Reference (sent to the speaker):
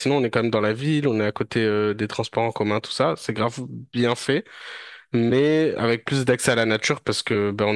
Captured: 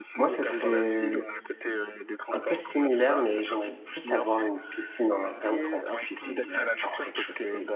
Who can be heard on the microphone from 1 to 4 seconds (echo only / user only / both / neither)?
both